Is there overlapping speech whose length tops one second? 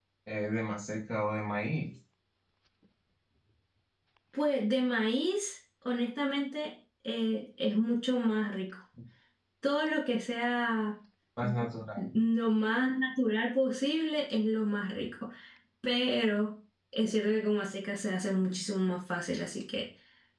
No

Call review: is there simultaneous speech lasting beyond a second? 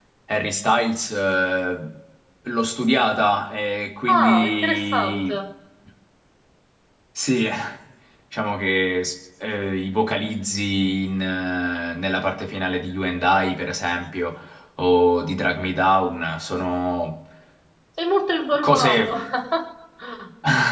Yes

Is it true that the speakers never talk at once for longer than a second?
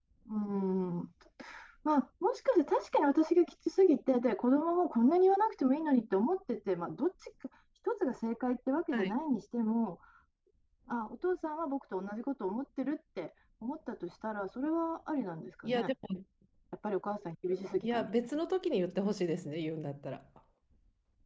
Yes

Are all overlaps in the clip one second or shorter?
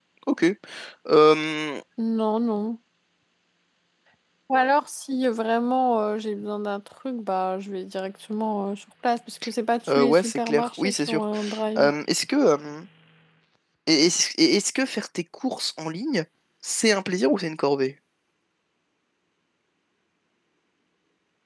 No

